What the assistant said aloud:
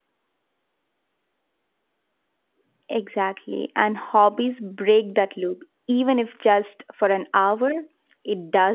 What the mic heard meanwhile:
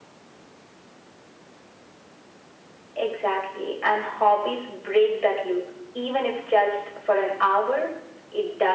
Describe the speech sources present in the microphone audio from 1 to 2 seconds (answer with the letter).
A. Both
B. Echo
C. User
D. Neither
D